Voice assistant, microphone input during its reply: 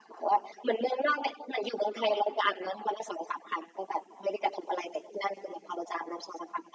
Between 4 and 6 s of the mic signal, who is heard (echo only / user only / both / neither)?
echo only